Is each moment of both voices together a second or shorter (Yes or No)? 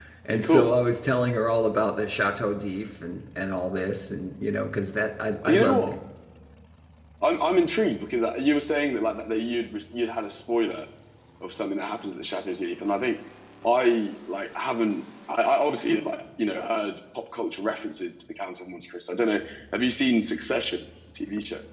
Yes